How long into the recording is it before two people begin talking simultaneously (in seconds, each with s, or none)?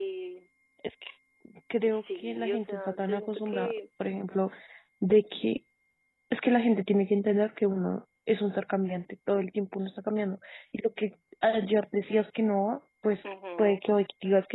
1.9 s